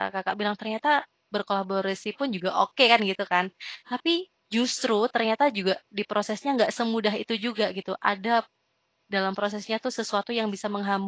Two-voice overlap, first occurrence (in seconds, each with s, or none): none